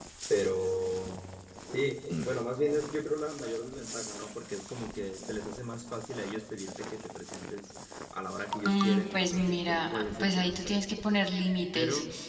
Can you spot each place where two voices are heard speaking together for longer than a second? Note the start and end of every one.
8.6-10.8

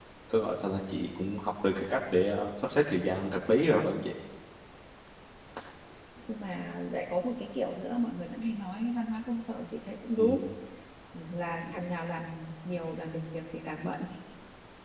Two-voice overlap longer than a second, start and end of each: none

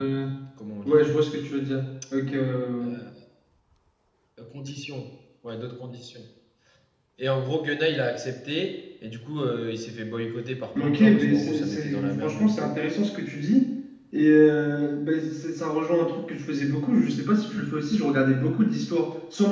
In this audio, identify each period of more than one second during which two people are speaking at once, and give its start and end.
10.8-12.7

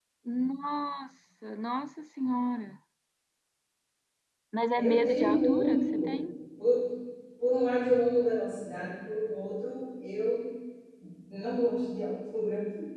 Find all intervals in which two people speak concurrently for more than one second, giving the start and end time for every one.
4.8-6.2

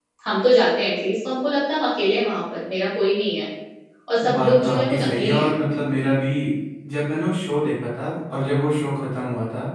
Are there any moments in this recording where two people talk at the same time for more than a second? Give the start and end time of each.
4.3-5.5

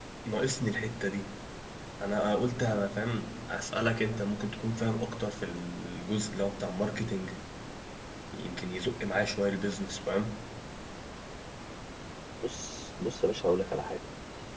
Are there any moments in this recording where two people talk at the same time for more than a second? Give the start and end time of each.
none

